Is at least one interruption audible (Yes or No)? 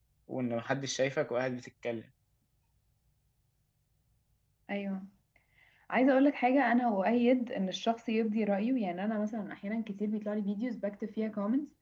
No